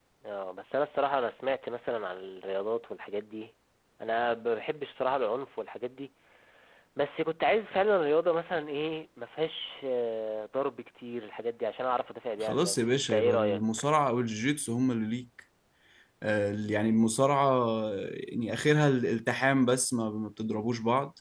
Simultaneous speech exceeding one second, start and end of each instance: 12.4-13.6

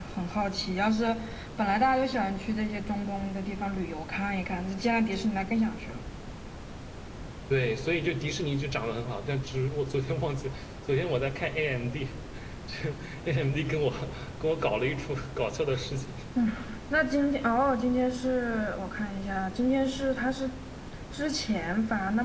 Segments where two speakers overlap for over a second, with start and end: none

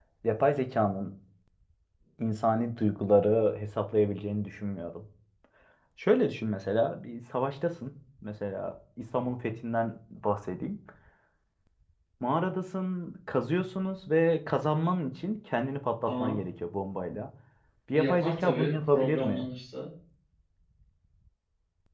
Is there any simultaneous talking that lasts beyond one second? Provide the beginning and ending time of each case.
17.9-19.5

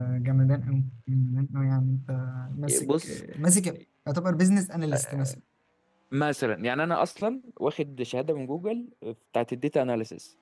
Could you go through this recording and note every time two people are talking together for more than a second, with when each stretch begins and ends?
none

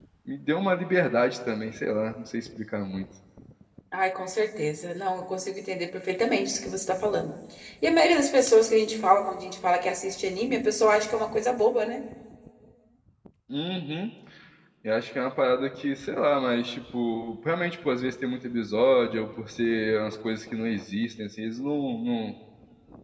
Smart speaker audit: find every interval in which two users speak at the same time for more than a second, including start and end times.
none

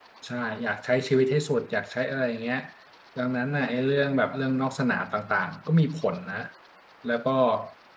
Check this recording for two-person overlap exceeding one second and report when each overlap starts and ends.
none

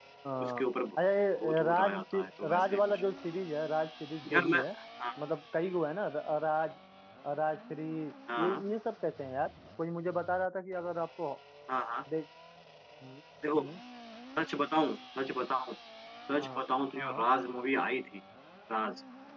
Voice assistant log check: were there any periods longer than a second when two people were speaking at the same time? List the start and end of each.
1.4-3.0

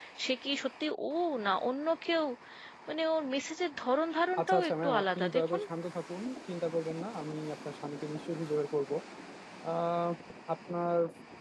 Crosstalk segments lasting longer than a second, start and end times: 4.4-5.6

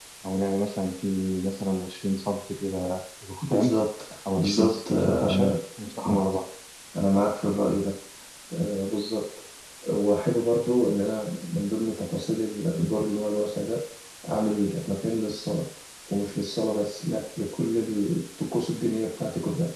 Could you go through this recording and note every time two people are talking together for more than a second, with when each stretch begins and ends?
4.4-5.6

